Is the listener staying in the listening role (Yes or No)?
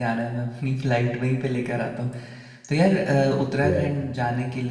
Yes